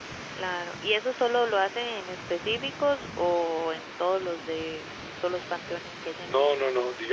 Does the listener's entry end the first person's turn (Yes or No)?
Yes